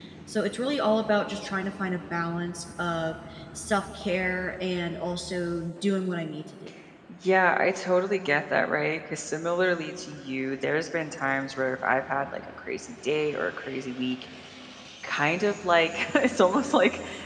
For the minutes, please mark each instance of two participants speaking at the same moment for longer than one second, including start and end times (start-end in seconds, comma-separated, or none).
none